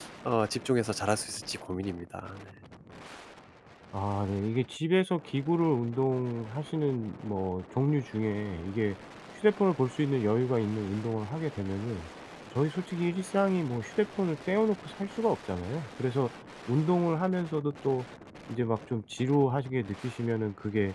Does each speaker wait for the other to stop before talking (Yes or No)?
Yes